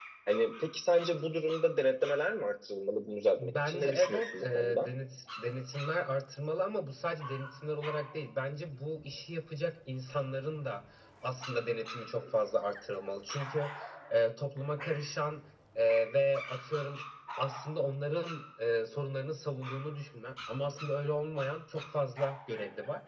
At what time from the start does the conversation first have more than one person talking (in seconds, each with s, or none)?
3.4 s